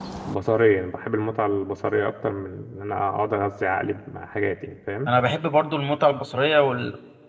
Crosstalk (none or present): none